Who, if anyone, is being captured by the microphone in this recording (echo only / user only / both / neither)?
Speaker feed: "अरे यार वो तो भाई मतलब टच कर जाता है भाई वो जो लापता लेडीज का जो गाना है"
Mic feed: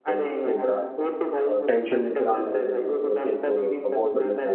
both